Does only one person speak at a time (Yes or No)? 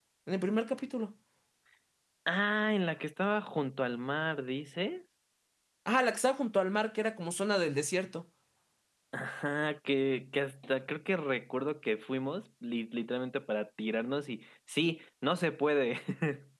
Yes